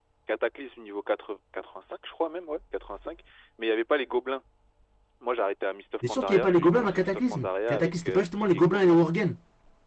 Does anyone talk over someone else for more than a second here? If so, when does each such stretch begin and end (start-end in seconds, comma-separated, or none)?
6.0-9.0